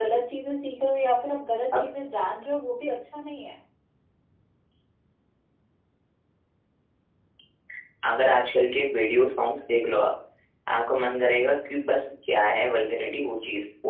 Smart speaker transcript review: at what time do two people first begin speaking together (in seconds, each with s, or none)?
none